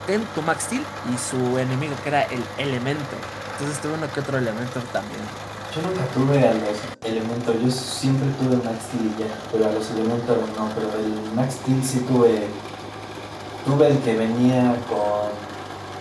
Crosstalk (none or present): none